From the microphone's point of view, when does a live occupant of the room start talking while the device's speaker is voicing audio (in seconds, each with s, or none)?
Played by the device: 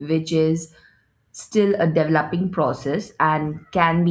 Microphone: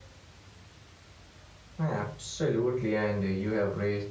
1.8 s